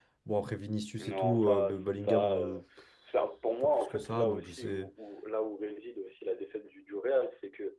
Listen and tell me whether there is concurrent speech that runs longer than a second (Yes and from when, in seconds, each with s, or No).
Yes, from 1.0 s